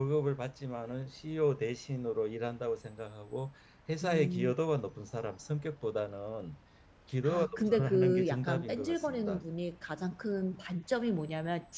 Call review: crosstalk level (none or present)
present